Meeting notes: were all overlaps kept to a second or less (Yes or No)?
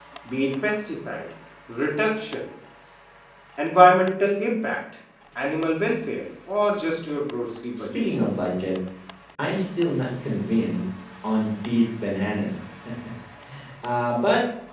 Yes